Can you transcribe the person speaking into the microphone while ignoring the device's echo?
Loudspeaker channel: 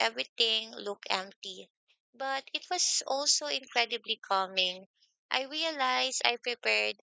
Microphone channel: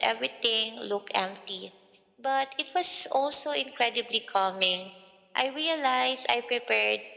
none

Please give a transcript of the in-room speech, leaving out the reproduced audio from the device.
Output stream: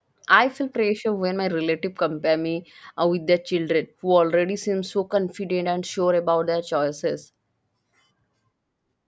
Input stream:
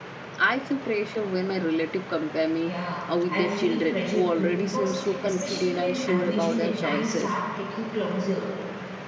Yeah, I feel pressure too because especially when admission deadlines start getting closer,

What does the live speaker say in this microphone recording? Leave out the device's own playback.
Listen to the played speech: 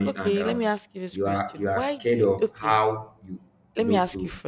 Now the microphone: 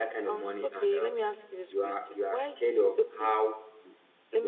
none

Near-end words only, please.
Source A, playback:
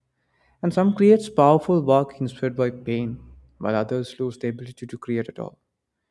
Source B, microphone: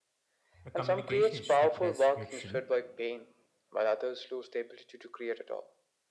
Uh, Communication is treated as neutral,

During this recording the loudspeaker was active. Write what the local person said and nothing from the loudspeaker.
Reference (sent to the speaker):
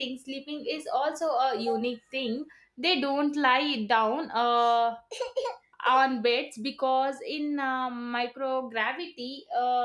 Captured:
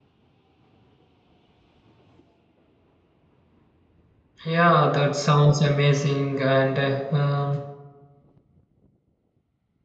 Yeah, that sounds amazing and uh, um,

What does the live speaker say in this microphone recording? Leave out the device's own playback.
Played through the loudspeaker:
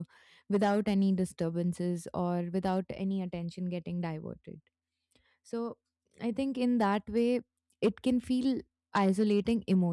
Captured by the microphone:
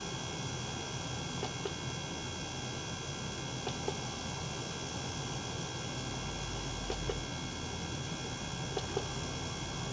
none

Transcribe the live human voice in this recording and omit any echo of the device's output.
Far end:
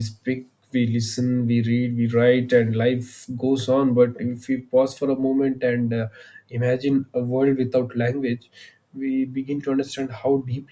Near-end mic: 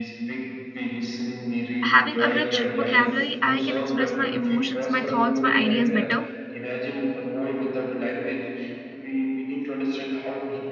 having a rich vocabulary, I can express my emotions, my thoughts, my ideas better

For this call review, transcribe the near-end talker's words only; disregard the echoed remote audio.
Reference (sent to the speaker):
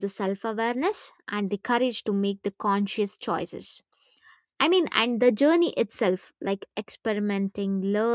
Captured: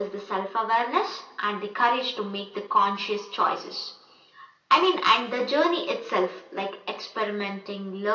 none

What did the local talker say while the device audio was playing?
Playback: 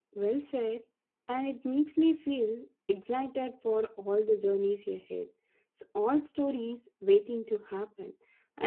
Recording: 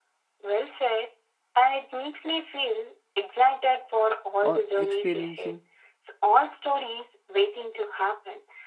or experiencing

